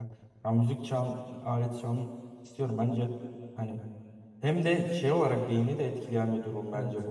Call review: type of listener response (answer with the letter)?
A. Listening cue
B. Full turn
A